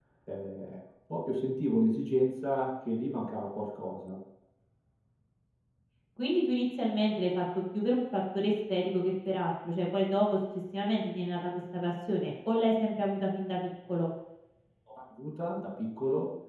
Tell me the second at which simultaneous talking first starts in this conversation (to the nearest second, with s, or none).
none